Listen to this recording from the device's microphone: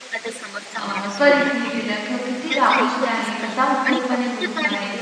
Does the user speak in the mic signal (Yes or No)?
Yes